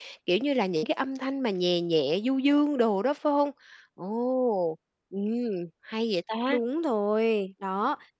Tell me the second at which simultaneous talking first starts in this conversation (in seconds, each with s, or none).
none